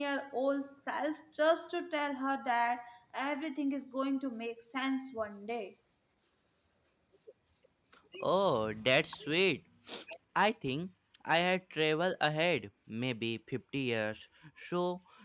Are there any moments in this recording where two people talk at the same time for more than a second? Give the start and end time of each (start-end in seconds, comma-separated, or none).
none